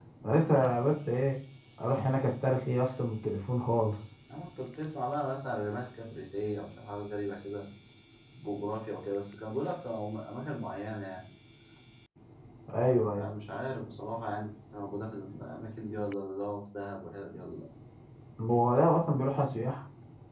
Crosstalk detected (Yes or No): No